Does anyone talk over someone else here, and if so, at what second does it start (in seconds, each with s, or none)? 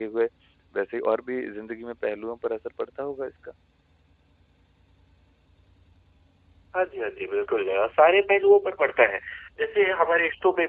none